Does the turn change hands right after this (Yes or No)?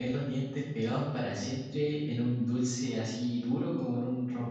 No